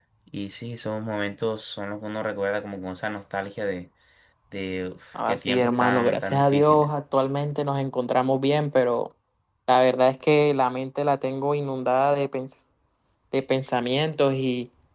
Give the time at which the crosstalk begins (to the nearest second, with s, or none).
5 s